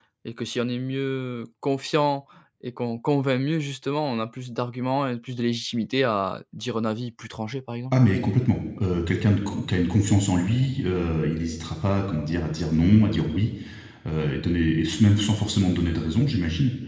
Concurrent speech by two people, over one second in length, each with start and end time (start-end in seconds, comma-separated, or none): none